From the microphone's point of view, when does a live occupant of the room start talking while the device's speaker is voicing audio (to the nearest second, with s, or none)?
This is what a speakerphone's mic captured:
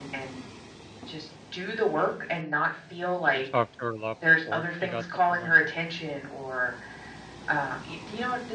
3 s